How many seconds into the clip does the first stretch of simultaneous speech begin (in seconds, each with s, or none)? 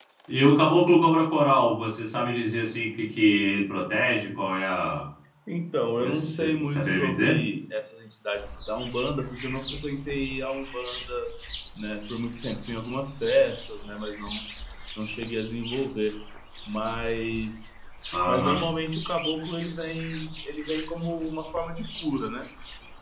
6.0 s